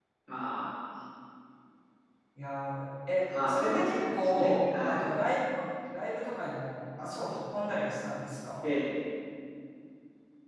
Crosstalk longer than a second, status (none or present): present